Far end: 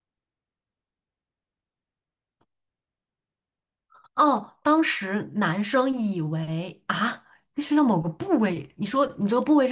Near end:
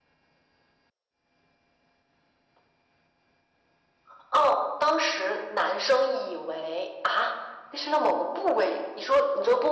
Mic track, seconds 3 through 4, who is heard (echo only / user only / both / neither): neither